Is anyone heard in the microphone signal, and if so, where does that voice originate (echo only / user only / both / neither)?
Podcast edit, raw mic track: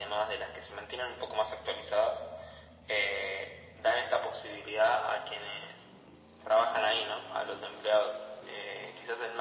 echo only